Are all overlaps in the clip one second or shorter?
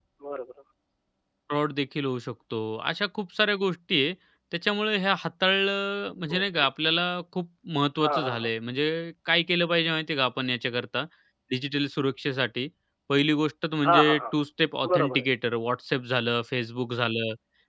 Yes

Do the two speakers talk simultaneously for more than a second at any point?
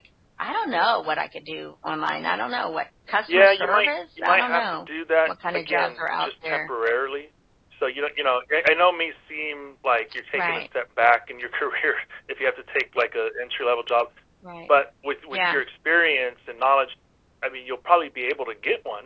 Yes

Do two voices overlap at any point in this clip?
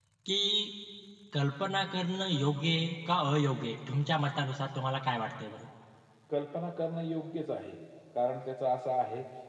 No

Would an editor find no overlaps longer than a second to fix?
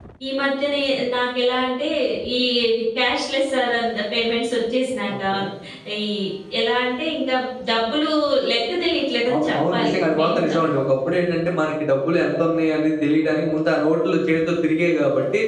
No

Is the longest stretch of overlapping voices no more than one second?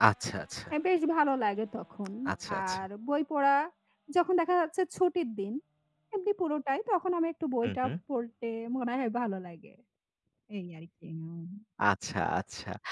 Yes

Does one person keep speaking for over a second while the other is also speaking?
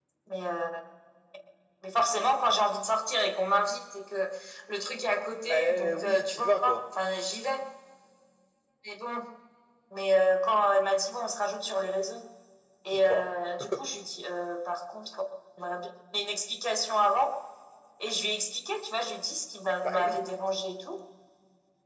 Yes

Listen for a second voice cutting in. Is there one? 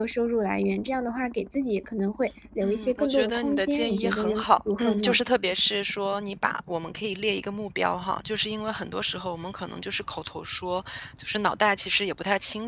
Yes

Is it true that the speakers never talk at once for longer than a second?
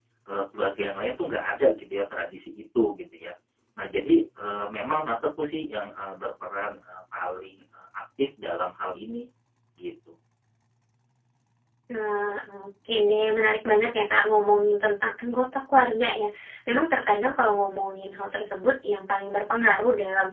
Yes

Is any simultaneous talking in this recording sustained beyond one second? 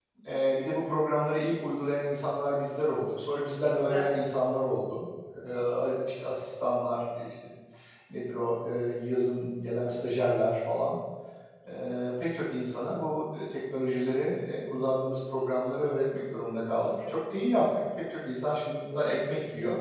No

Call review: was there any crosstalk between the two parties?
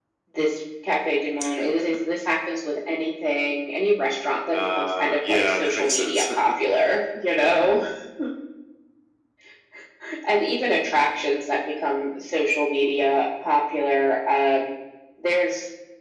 Yes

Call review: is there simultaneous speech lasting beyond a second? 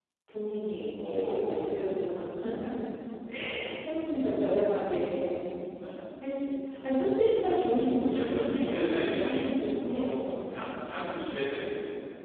Yes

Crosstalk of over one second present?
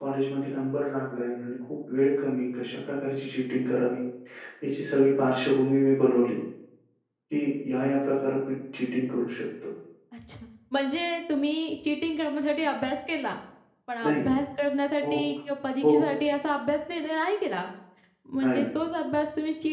No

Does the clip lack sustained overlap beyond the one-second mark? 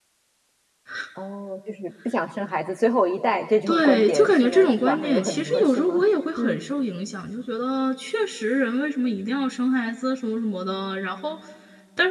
No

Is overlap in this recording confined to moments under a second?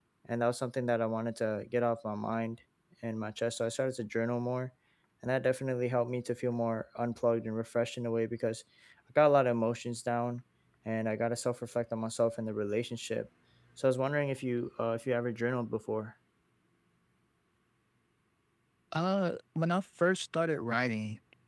Yes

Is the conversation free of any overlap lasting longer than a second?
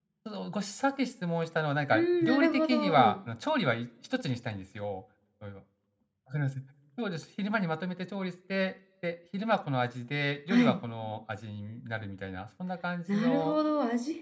No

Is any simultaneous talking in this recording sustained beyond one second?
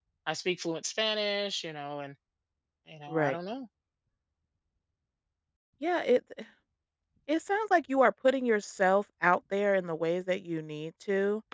No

